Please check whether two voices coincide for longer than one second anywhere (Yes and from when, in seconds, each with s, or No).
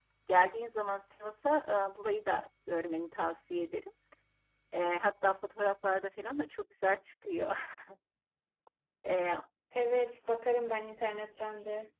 No